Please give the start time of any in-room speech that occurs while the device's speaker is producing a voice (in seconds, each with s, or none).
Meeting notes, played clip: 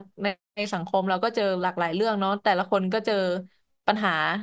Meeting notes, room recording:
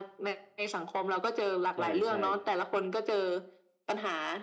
1.7 s